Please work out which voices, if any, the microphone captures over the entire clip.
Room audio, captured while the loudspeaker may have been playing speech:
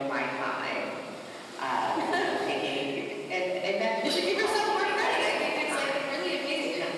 echo only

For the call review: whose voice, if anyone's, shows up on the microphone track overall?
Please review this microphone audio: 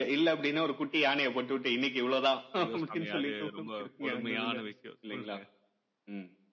both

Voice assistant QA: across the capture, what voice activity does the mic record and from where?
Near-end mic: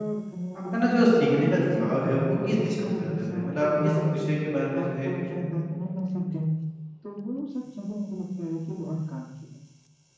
both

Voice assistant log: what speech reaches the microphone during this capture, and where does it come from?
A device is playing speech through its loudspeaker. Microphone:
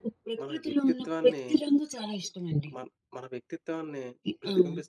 both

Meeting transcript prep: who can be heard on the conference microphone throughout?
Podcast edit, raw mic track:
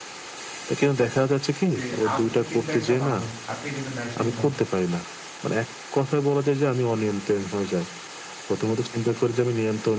both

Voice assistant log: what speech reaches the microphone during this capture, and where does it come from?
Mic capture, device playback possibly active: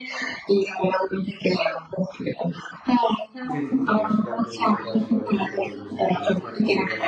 both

